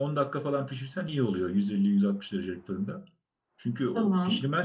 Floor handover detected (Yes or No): No